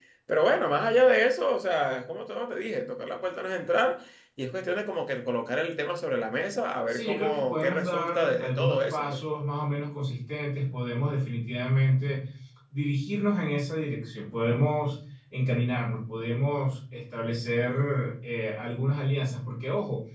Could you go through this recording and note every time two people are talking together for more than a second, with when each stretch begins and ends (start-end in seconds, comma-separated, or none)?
6.9-9.2